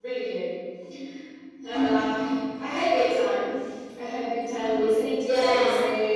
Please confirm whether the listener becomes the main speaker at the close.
No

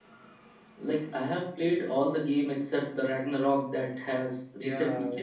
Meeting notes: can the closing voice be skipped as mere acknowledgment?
No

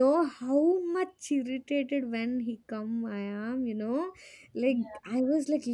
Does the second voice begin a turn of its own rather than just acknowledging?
No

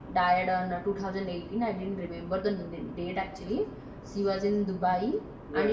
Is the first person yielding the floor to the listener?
No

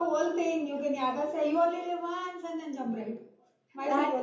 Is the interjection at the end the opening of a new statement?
Yes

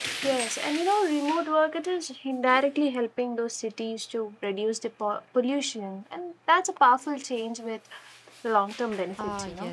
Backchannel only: No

